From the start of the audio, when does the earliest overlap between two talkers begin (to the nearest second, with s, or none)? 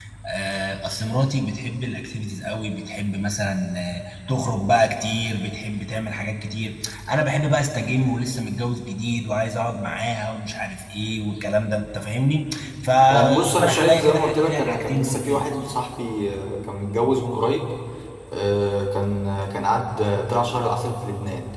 13 s